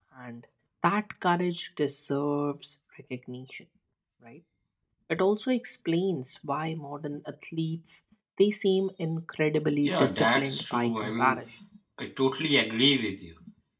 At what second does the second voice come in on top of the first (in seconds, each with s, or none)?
9.8 s